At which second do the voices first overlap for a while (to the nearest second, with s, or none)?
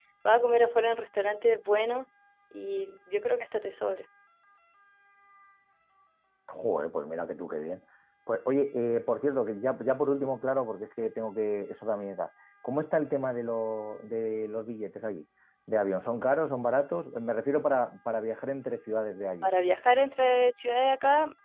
none